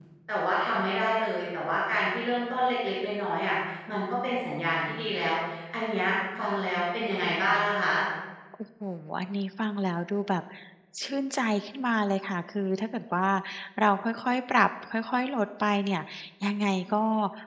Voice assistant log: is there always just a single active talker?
Yes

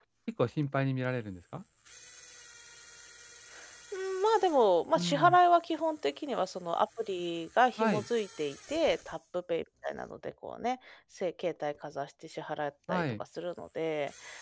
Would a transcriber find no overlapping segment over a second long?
Yes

